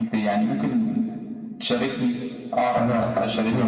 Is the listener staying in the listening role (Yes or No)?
No